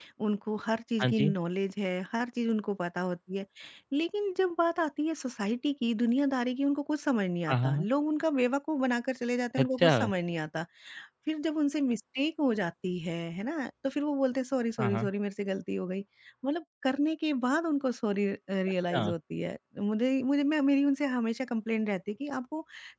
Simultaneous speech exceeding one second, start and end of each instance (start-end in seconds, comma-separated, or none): none